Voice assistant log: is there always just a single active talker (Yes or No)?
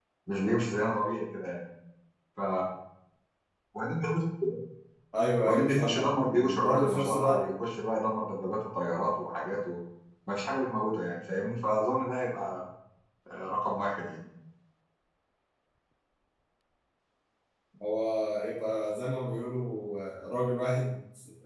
No